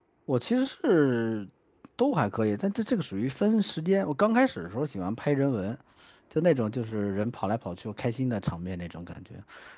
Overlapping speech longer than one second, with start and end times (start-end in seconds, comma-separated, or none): none